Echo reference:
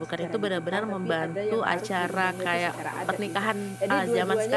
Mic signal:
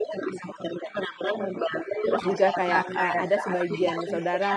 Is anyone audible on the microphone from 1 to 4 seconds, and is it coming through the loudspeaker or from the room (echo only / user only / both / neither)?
both